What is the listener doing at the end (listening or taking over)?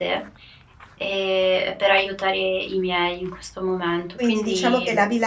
taking over